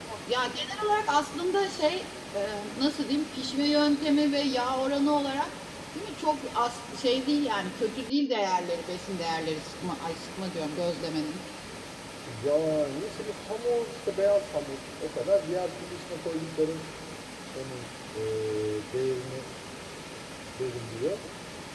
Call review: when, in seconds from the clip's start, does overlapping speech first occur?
none

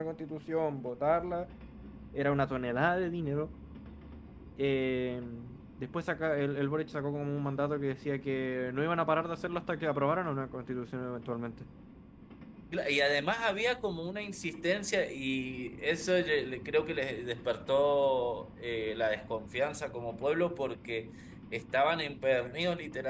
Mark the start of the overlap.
none

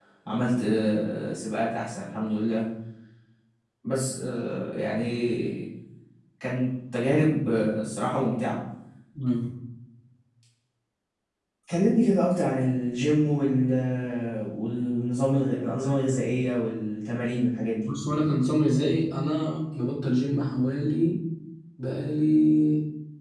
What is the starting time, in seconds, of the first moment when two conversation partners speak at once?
none

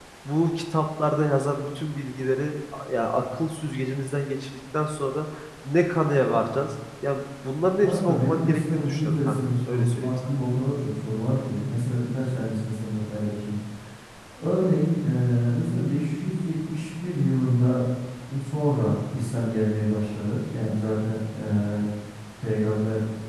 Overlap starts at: 7.8 s

